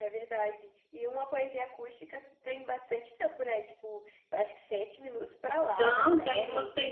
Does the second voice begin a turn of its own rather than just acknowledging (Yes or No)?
Yes